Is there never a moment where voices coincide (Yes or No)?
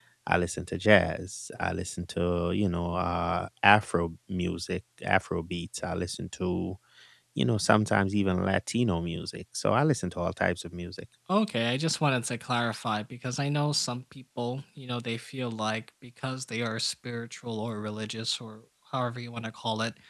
Yes